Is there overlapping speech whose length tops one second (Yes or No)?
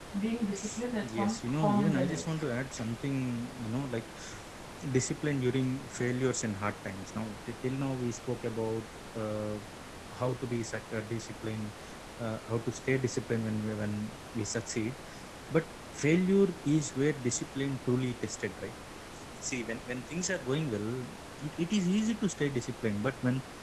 Yes